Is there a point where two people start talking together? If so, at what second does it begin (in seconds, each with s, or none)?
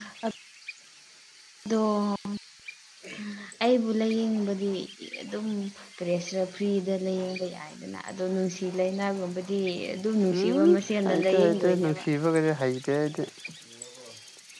10.3 s